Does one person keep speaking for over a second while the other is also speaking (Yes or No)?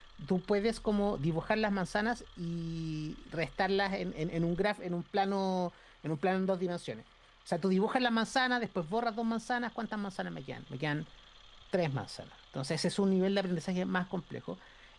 No